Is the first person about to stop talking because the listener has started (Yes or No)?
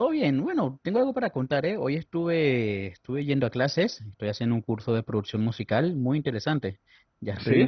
No